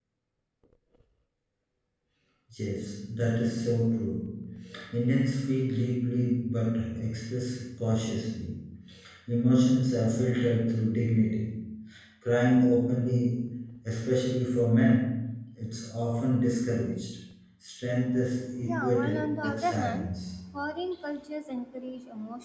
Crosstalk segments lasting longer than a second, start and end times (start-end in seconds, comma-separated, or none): 18.6-20.1